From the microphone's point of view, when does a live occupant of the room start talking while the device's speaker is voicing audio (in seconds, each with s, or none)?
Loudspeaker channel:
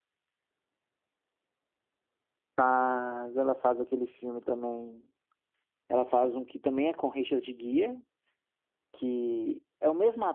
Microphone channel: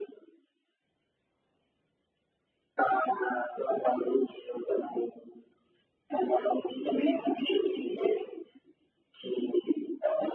none